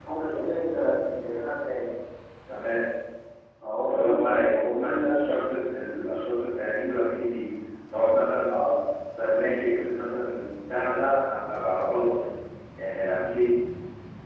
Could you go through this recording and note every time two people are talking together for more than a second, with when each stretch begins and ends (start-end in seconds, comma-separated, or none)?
3.9-5.4